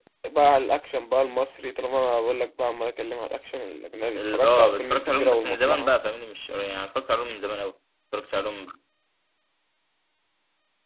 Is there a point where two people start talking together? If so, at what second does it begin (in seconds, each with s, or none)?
4.2 s